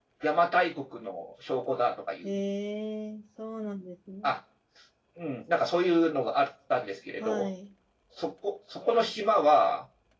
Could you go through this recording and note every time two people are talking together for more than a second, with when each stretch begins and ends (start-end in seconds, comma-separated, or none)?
none